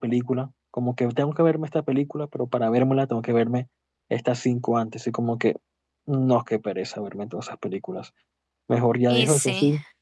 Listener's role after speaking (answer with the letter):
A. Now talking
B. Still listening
B